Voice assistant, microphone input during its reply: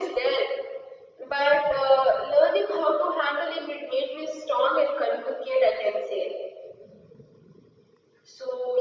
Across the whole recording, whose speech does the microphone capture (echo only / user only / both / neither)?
echo only